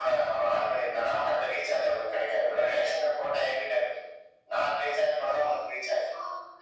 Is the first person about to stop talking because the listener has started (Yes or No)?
Yes